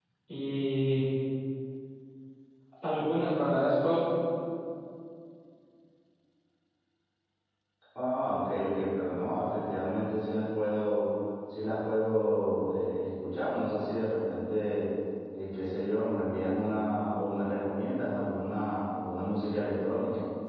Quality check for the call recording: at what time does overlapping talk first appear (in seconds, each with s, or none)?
none